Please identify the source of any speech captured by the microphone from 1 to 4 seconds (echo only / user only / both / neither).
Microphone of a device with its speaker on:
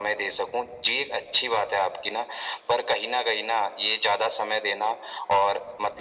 echo only